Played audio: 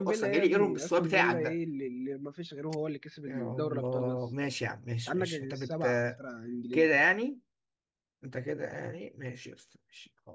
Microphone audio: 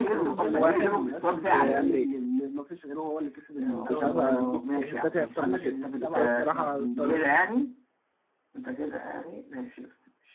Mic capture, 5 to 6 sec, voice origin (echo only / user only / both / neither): both